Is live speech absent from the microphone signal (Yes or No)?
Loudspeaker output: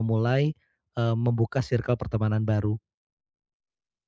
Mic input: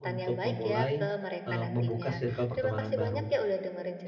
No